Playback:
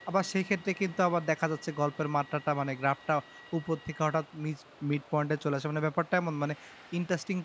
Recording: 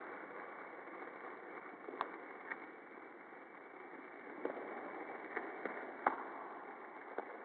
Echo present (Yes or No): No